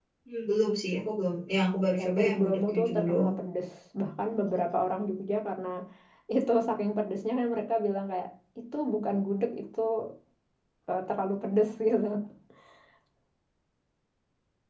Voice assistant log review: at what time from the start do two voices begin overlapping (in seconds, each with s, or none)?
2.0 s